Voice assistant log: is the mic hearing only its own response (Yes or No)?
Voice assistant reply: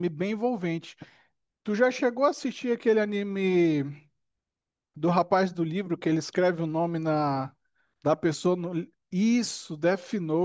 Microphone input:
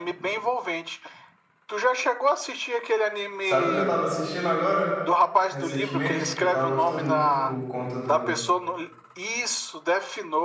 No